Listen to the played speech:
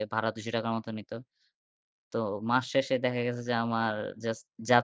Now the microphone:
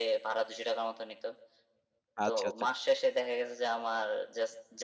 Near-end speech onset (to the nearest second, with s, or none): 2 s